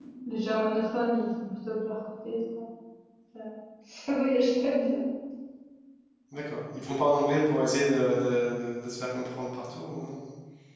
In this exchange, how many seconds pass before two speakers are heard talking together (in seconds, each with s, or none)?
none